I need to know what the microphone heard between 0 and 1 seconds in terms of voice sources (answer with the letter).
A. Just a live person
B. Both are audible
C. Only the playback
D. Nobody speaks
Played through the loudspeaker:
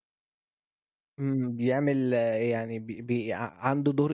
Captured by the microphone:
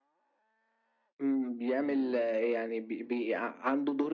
D